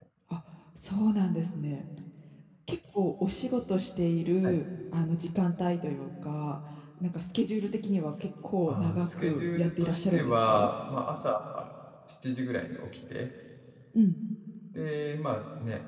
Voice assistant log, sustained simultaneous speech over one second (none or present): present